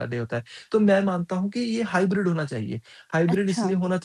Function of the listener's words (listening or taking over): listening